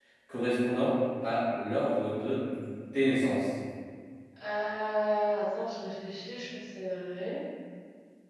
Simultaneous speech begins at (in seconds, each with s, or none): none